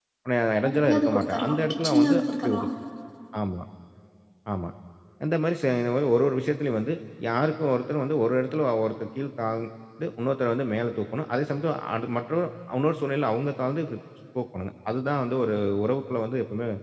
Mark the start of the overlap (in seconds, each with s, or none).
0.7 s